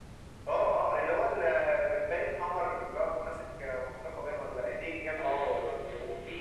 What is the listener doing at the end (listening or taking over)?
taking over